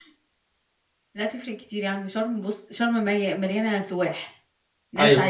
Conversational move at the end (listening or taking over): listening